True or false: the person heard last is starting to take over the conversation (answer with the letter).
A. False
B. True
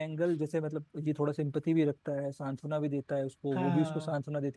A